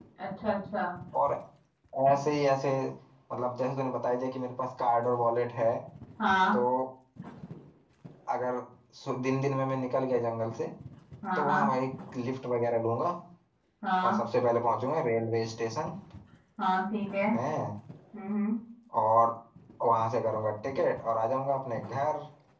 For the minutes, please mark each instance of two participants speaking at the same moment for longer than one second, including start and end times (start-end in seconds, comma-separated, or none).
none